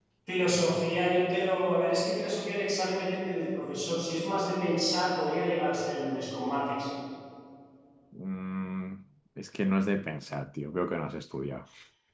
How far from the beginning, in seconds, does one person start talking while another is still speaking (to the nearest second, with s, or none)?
none